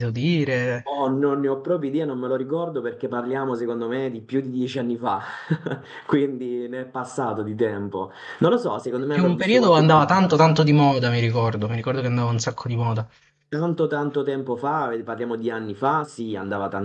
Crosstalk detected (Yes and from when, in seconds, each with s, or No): Yes, from 9.1 s